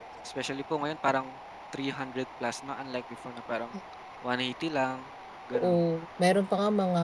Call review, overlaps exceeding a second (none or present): none